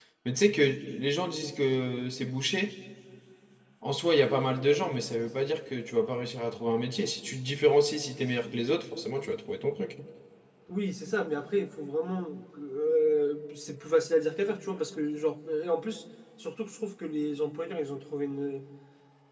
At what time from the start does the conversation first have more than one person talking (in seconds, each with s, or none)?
none